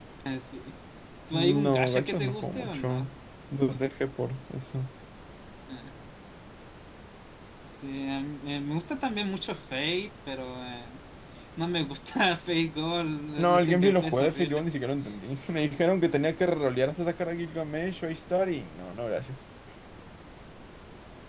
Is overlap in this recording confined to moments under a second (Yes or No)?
No